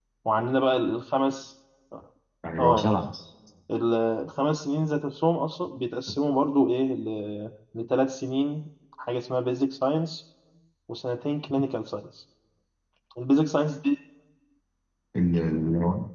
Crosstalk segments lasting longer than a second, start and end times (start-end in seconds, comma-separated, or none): none